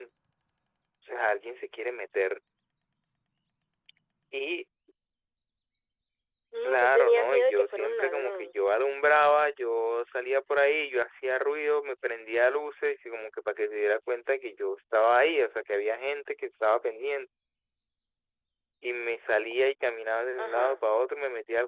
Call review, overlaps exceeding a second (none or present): present